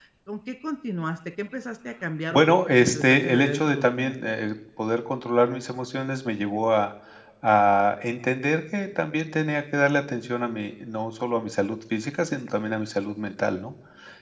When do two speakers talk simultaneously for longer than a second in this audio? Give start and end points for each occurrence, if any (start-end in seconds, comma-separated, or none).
2.3-4.2